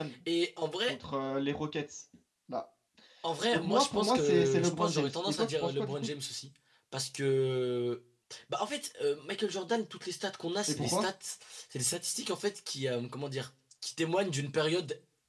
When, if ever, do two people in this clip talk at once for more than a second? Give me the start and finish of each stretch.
3.5-6.1

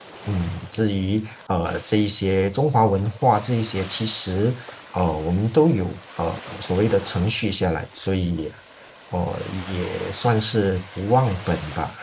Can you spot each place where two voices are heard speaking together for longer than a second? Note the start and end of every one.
none

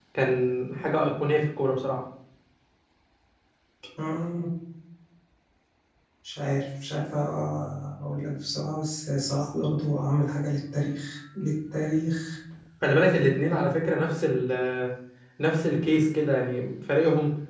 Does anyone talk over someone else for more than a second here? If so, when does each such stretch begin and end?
none

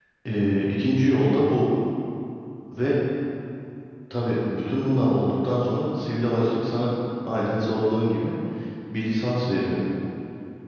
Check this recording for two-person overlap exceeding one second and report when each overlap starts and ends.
none

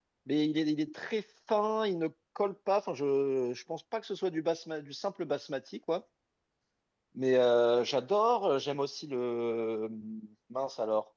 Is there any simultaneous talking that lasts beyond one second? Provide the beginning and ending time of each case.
none

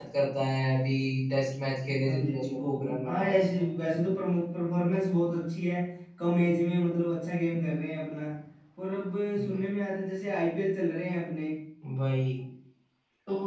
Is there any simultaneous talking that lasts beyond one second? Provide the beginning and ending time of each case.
2.1-3.7

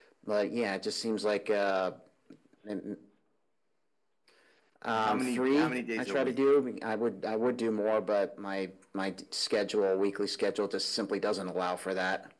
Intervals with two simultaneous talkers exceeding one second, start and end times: 4.9-6.4

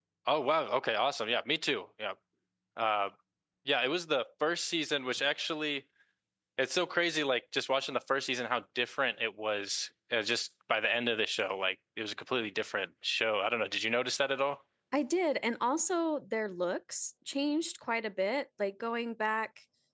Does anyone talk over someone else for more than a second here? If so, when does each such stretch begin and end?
none

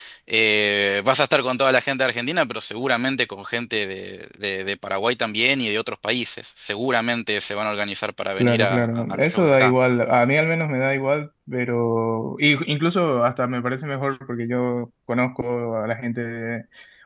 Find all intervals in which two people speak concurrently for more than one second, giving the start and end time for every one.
8.4-9.7

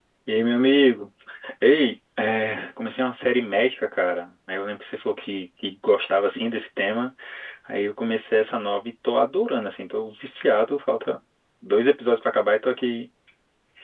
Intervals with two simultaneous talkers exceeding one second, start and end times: none

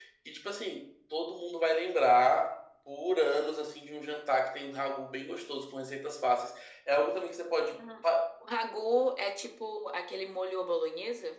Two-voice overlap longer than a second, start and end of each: none

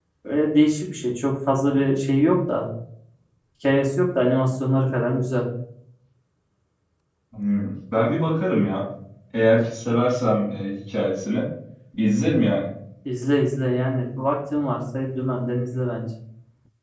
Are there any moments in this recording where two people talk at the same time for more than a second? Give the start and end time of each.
none

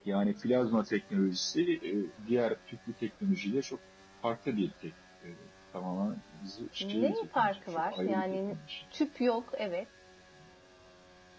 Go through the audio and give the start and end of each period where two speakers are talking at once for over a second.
6.8-8.6

